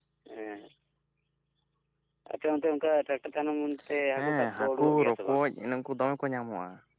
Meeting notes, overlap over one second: present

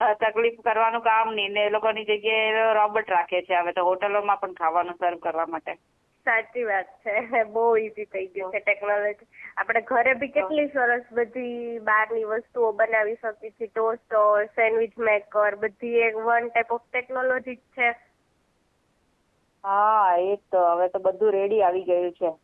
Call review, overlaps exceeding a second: none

